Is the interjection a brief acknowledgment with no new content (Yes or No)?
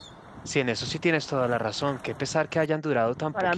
No